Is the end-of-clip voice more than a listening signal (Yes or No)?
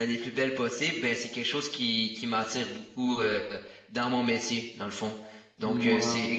No